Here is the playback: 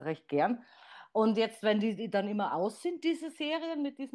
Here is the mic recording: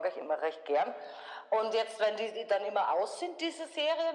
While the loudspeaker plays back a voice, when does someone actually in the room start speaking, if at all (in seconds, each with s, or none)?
none